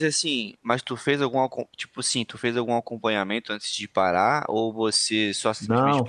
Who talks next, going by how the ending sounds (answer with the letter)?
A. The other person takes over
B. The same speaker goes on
A